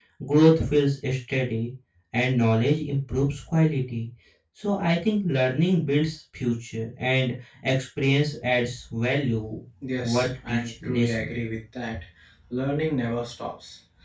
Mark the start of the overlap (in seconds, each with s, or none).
10.0 s